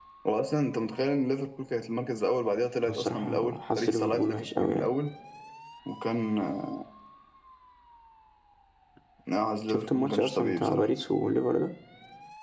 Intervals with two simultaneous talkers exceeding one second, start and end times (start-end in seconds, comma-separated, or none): 2.8-4.9, 9.7-10.9